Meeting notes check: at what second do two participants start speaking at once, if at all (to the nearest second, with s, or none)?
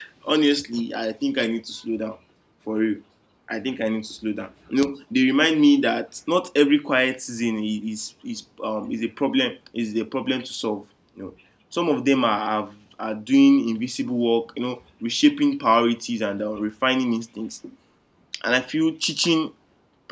none